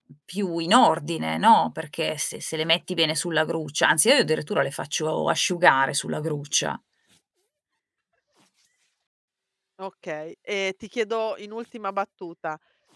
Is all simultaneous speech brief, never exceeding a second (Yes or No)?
Yes